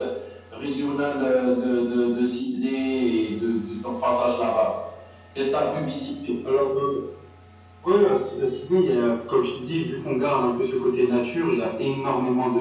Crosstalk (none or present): none